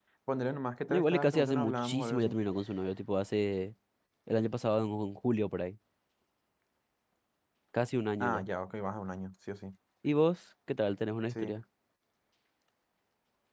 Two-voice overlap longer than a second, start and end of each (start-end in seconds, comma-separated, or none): 0.9-2.4